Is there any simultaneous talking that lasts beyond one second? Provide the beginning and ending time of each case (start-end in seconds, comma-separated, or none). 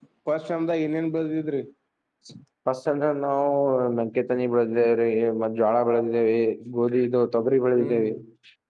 none